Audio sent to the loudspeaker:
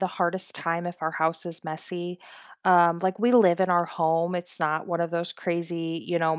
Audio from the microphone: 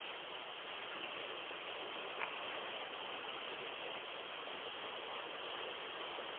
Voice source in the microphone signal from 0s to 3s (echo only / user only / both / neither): neither